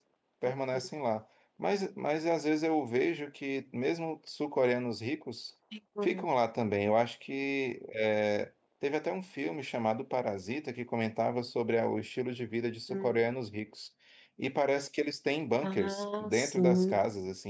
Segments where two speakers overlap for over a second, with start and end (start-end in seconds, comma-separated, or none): 15.6-17.0